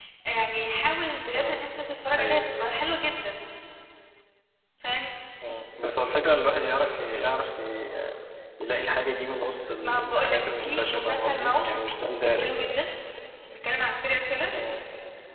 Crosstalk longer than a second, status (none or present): present